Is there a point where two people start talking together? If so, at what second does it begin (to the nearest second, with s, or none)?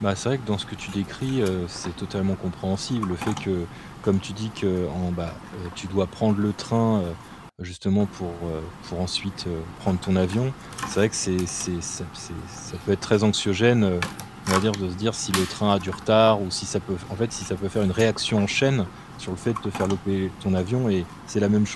none